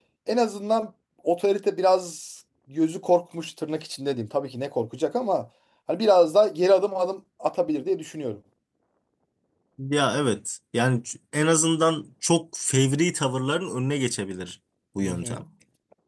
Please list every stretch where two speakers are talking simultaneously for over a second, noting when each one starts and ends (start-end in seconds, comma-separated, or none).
none